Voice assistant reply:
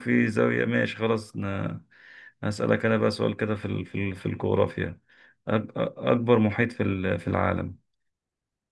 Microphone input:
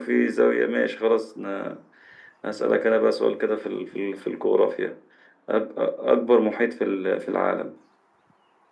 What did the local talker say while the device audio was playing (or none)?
none